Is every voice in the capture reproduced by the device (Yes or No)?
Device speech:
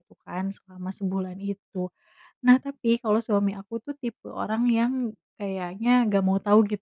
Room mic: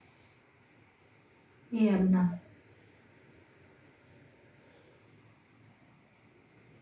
No